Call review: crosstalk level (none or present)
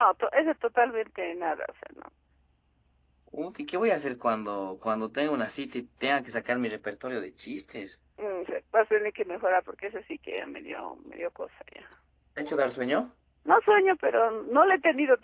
none